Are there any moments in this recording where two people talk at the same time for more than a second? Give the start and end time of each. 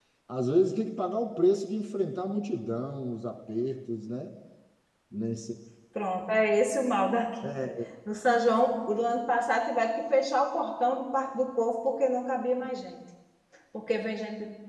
none

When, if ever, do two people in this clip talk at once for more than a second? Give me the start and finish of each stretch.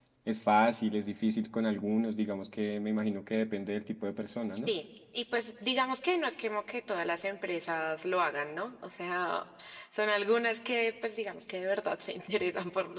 none

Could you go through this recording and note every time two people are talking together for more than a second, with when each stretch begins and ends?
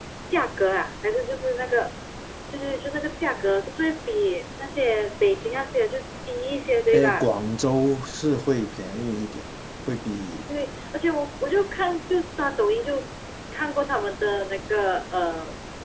none

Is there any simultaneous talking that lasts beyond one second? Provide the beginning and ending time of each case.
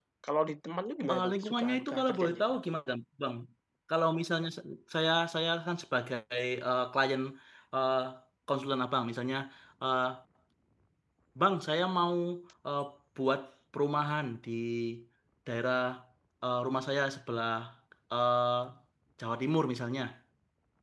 1.1-2.6

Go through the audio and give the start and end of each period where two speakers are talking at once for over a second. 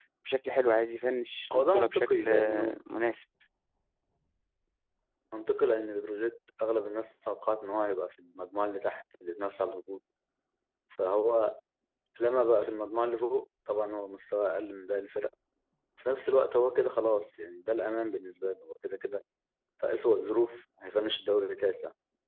1.5-2.8

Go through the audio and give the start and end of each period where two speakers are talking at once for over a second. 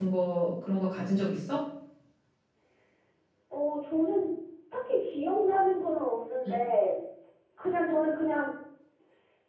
none

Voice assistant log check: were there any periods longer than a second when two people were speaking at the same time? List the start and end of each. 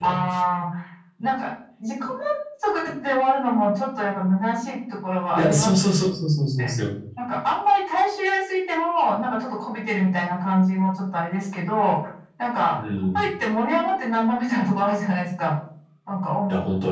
none

